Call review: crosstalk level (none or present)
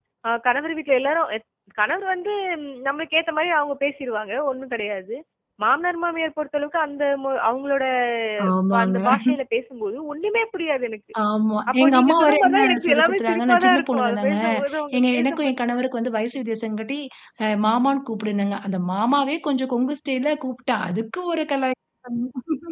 present